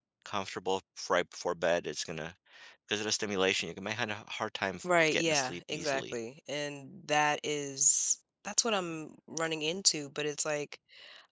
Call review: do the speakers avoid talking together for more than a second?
No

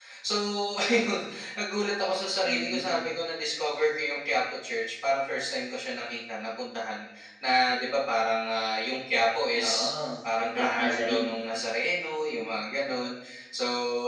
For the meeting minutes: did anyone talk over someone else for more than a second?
Yes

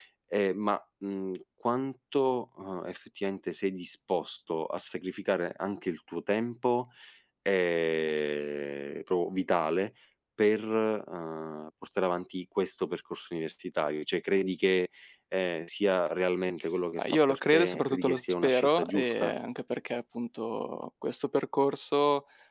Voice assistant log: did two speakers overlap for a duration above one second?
Yes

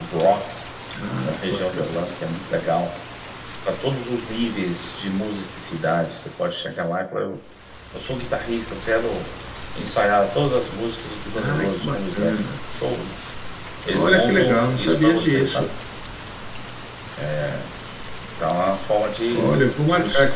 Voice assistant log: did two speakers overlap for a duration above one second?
Yes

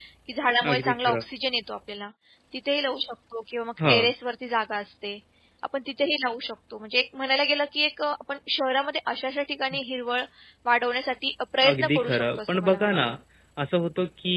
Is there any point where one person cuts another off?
Yes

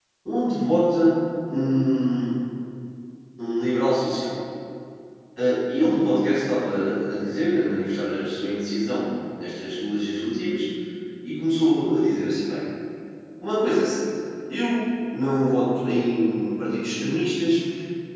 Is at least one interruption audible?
No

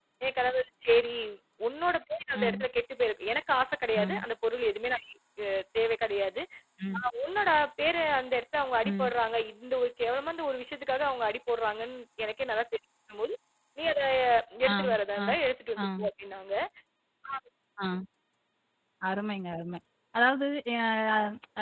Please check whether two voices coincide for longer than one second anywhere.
No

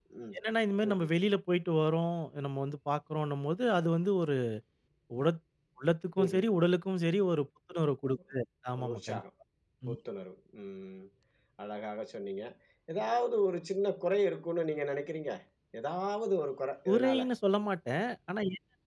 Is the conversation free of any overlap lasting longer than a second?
Yes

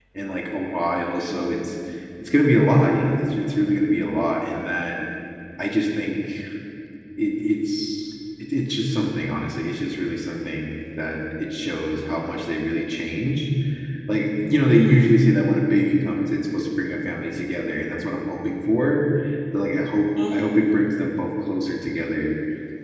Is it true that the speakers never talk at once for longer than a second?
Yes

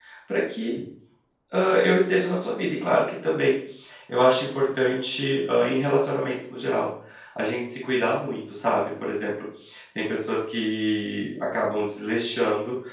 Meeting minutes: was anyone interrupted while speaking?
No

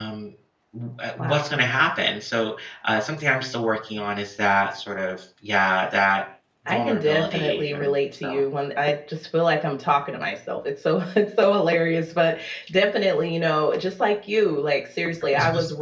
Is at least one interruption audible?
Yes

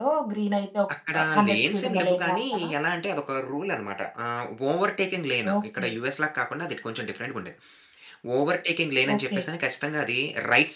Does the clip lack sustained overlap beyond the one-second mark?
No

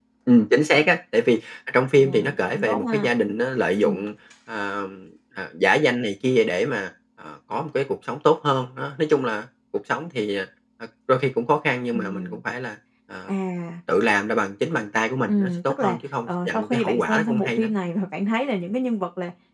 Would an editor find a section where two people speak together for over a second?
Yes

